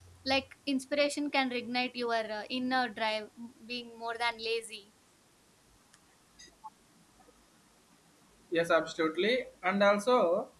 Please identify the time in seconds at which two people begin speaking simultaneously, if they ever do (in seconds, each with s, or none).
none